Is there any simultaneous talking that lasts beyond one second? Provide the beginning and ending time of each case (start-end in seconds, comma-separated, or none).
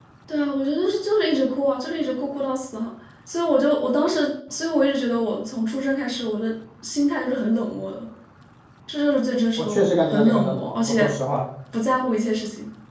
9.6-11.1